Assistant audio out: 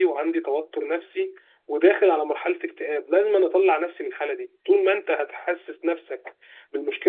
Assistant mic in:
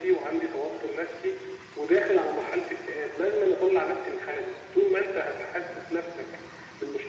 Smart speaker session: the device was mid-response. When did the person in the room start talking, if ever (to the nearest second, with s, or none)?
none